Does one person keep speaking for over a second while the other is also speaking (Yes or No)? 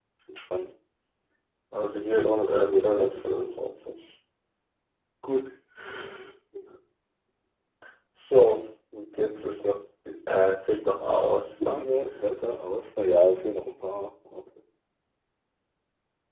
Yes